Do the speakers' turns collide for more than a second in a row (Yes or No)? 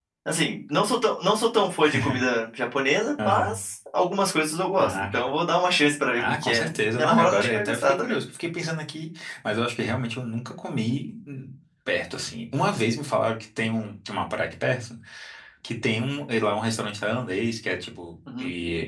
Yes